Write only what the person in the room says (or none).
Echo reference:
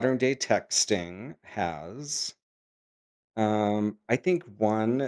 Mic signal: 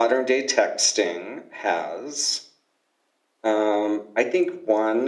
none